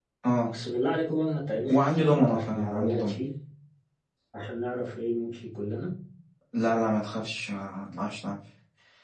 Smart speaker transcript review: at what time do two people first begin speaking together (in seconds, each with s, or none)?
1.6 s